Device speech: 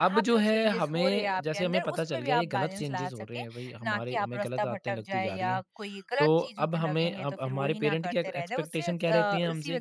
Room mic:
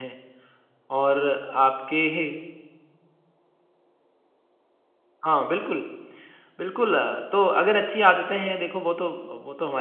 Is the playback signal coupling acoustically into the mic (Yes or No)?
No